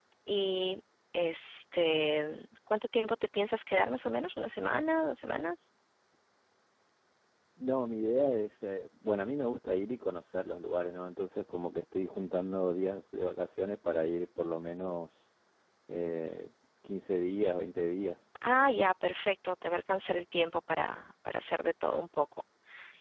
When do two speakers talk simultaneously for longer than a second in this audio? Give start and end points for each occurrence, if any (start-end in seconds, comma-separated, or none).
none